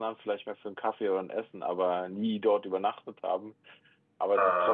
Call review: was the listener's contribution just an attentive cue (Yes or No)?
Yes